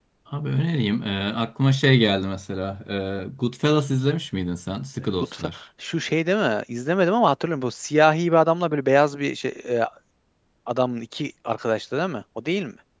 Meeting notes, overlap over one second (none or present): none